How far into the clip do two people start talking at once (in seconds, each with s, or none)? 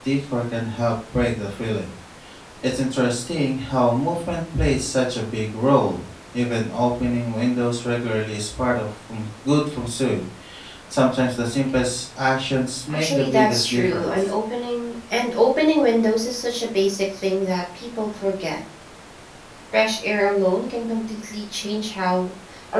12.9 s